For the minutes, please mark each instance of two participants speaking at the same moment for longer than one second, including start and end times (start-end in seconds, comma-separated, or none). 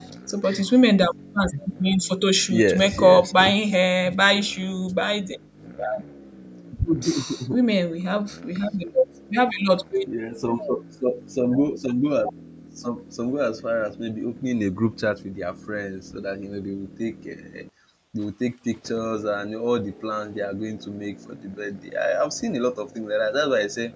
2.5-3.7